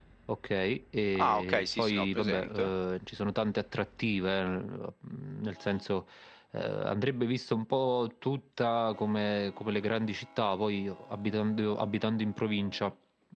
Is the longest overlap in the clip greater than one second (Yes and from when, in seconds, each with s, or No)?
Yes, from 1.2 s